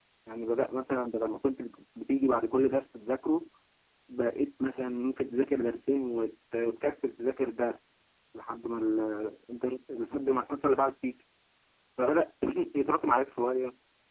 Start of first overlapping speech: none

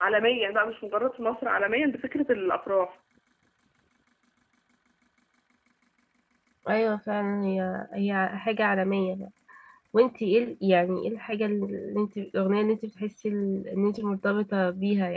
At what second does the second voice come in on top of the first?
none

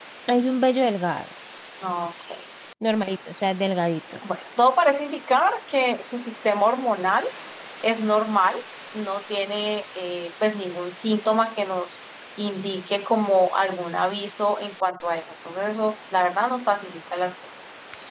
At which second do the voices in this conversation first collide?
none

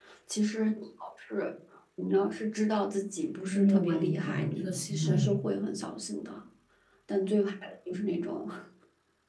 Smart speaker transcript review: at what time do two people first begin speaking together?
3.5 s

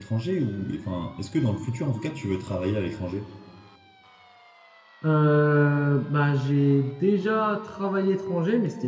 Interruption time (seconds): none

